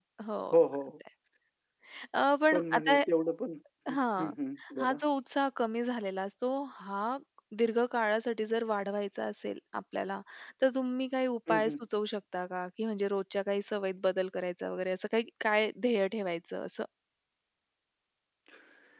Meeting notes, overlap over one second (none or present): none